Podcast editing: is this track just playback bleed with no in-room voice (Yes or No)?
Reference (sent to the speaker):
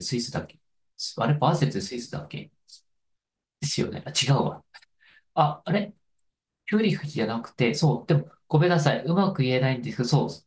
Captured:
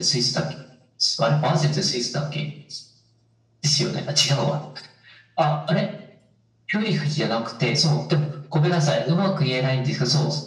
Yes